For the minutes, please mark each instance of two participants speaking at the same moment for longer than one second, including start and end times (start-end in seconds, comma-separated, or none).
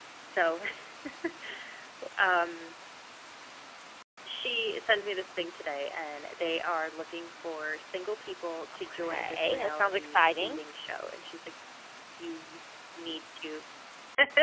8.7-10.6